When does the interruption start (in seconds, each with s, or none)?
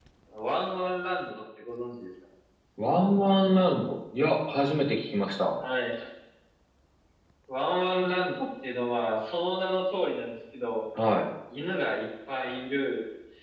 none